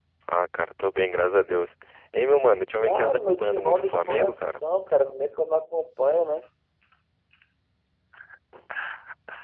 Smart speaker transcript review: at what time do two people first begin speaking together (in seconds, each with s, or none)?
2.8 s